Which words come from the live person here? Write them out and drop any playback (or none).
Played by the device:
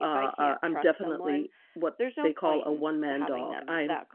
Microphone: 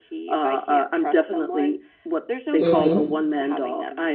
Mhm.